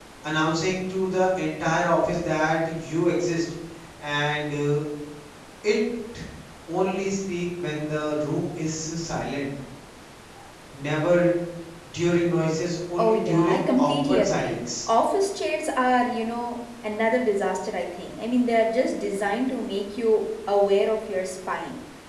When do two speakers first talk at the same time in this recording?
13.0 s

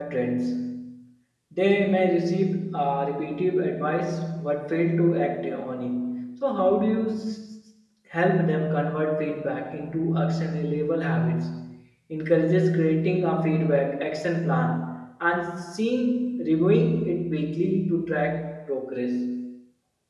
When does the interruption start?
none

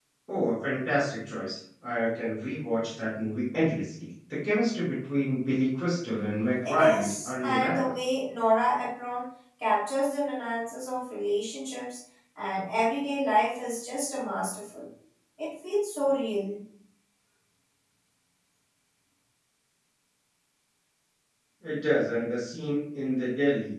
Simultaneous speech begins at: 6.6 s

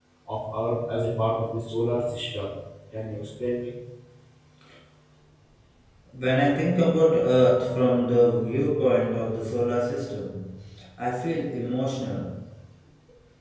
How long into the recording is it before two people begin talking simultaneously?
none

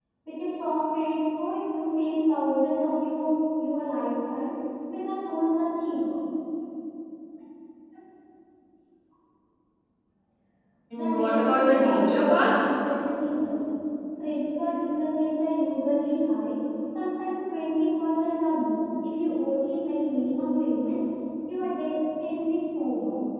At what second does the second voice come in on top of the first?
10.9 s

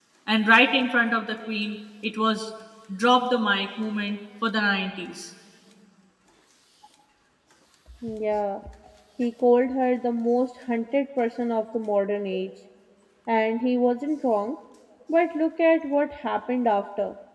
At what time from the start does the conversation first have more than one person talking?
none

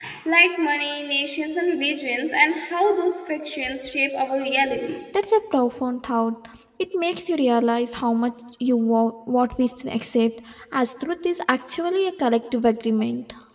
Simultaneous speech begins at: none

